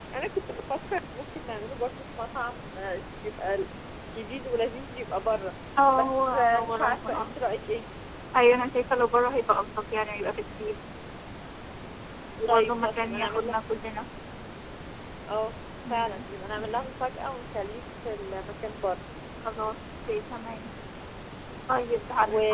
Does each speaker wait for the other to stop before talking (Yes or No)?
No